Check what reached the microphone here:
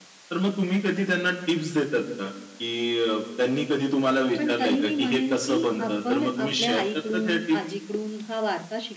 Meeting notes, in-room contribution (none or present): present